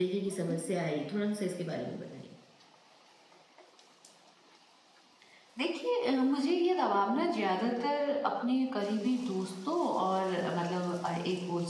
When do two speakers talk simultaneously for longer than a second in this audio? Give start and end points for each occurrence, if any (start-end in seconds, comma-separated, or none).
none